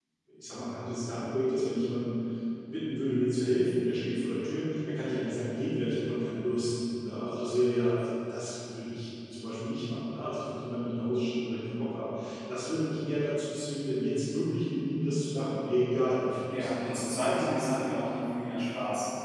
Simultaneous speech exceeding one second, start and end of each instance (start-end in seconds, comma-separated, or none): 16.5-17.9